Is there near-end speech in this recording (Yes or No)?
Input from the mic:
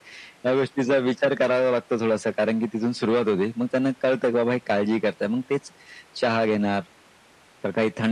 No